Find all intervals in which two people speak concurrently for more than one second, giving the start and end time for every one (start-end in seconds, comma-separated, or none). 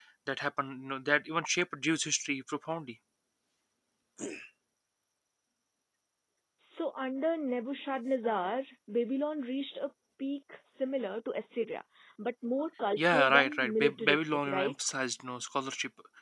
13.0-14.7